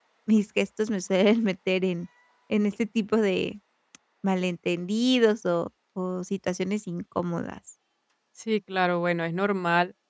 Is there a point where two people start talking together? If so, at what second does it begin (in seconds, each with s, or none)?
none